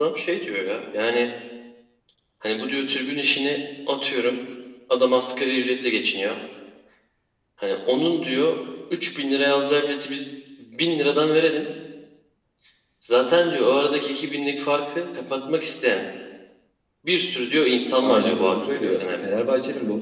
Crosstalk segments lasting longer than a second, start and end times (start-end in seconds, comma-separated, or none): 18.0-19.3